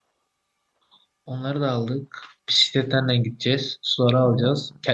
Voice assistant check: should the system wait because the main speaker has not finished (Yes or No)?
Yes